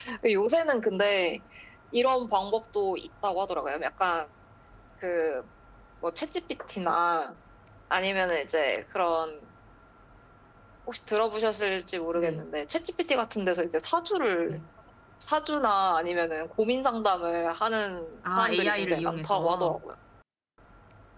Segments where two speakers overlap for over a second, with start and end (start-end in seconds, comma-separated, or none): 18.4-19.8